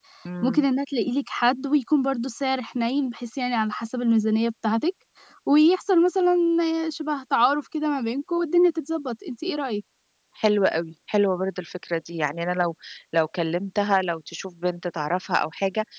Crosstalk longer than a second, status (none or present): none